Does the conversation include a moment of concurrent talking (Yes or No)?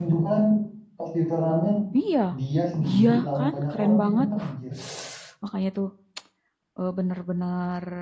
Yes